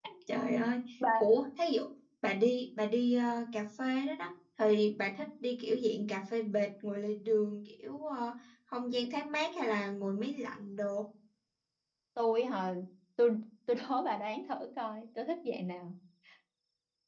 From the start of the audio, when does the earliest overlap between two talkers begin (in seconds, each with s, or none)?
none